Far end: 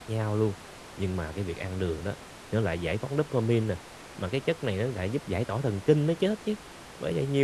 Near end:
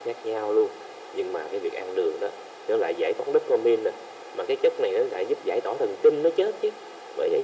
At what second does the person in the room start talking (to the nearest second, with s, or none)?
none